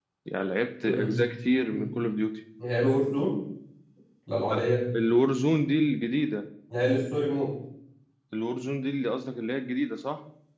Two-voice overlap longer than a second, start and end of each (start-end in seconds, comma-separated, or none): none